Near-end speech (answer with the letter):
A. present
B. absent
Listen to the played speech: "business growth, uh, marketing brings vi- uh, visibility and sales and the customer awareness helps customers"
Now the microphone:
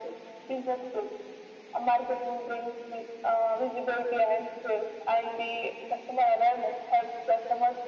B